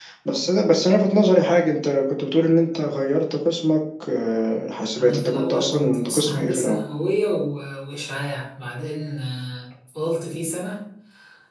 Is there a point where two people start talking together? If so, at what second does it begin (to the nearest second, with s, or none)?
5 s